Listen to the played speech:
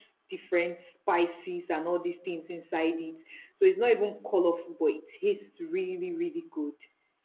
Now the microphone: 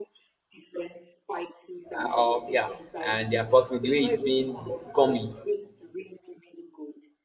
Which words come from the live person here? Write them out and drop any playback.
uh, um, yeah, and the approximate, the way it being gummy.

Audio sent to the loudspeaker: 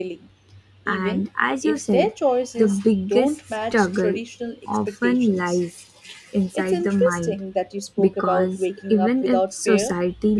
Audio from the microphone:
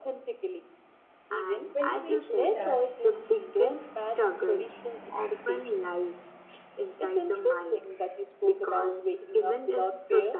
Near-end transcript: When you mentioned that

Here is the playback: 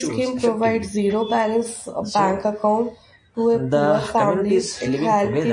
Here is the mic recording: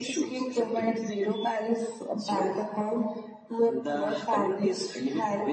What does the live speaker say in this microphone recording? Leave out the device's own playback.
none

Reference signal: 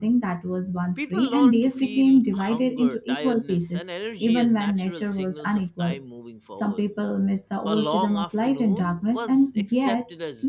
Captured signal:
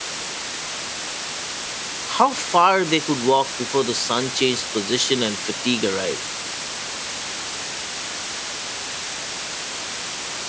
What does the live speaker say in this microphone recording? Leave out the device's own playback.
how far they could walk before the sun changed position and fatigue arrived.

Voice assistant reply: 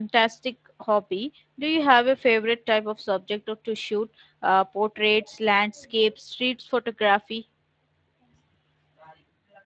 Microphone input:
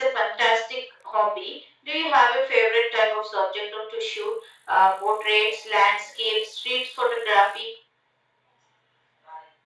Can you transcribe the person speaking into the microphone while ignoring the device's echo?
none

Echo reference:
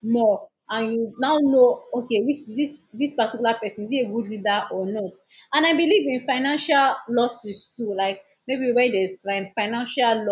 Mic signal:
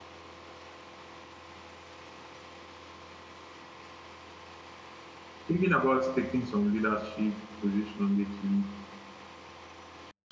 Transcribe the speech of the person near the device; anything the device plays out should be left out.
thinking about taking some leadership position lately,

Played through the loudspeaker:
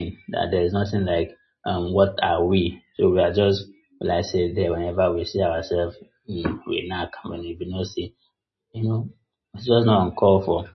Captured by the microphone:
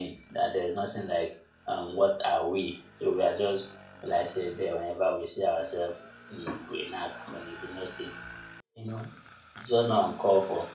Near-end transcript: none

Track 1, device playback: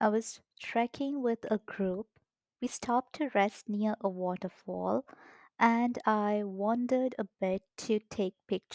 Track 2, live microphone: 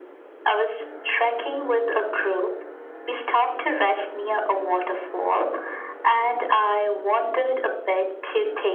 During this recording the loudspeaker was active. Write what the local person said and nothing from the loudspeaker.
none

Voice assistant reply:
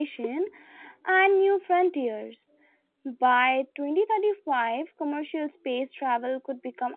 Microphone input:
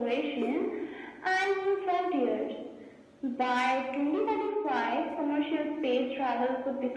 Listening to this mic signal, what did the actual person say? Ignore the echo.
none

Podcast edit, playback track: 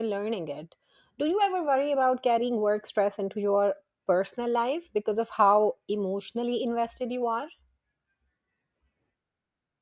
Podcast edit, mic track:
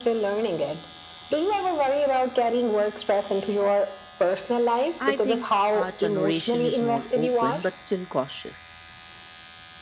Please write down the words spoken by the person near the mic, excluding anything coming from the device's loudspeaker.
I think our generation is more open but still cautious.

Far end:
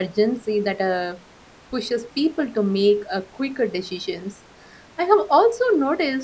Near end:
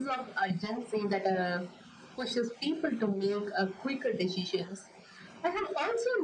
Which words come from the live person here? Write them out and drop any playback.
none

